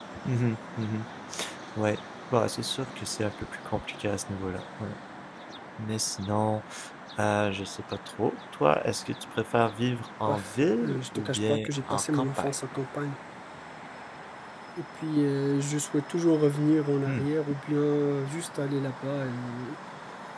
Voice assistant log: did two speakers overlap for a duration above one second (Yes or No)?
Yes